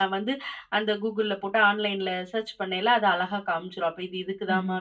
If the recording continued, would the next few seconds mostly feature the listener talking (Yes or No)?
No